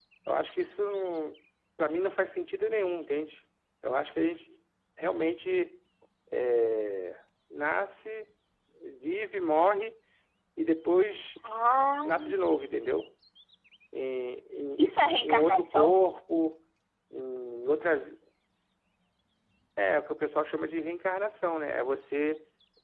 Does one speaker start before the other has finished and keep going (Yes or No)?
Yes